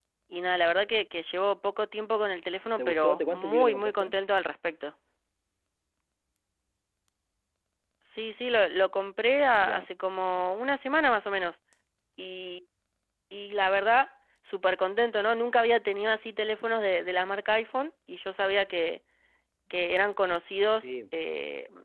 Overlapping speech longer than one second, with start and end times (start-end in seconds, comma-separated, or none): 2.8-4.1